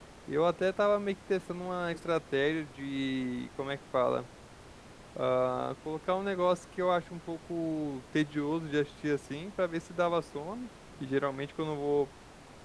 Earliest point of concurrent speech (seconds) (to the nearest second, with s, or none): none